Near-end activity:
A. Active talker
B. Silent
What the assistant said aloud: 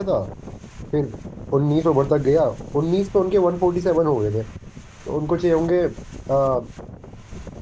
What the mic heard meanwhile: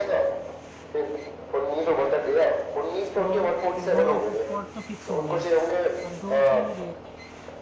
A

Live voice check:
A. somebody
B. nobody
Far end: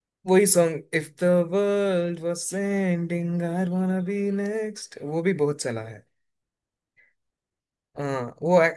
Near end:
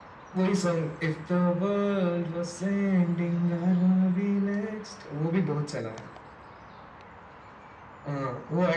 B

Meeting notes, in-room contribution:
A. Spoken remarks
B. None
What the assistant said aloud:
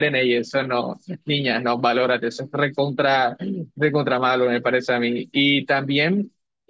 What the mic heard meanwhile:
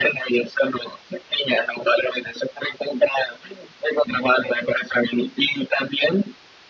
B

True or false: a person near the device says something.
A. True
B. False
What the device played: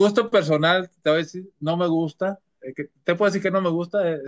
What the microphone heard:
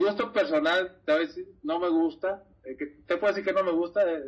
B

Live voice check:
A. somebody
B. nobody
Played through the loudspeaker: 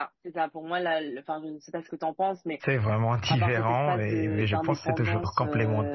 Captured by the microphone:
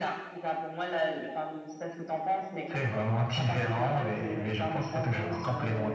B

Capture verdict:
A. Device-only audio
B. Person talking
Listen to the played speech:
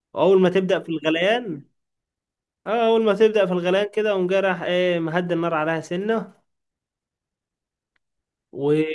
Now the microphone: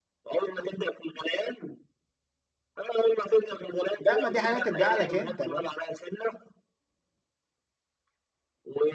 B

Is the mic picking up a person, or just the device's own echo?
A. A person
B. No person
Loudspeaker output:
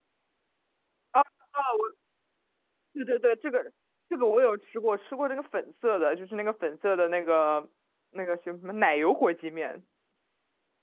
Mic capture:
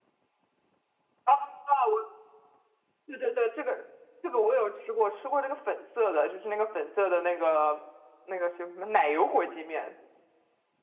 B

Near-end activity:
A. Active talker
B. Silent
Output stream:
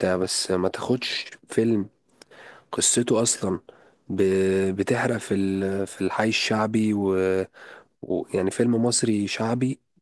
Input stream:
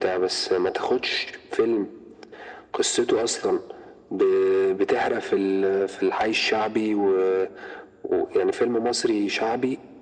B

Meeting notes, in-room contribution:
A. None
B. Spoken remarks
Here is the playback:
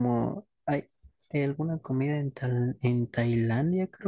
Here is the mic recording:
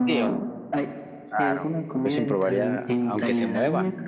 B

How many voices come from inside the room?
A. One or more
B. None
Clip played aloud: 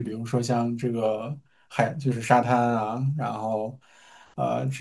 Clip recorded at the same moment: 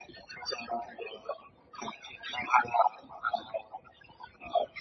B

